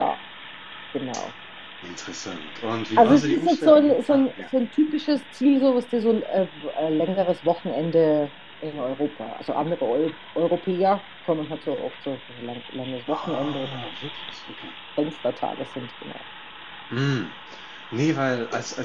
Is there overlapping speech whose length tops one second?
Yes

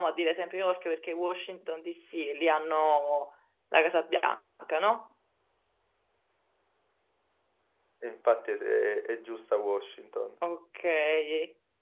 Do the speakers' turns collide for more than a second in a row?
No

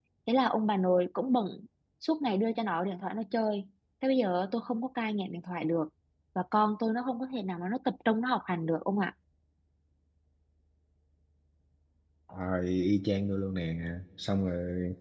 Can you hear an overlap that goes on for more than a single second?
No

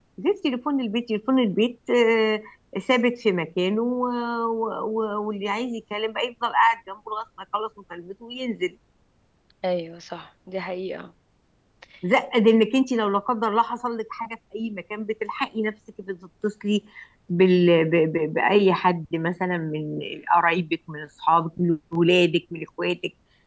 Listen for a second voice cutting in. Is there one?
No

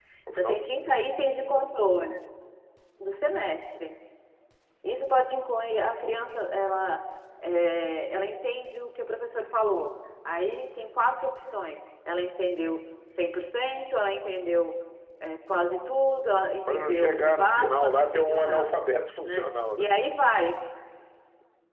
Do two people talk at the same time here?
Yes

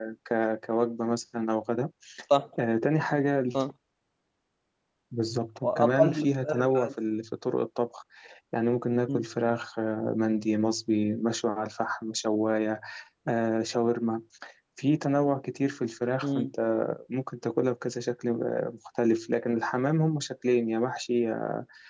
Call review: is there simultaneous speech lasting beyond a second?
Yes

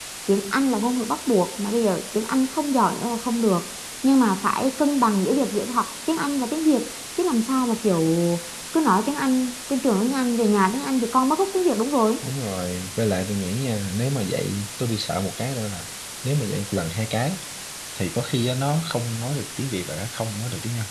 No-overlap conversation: Yes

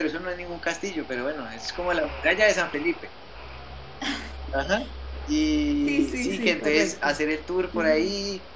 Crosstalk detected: Yes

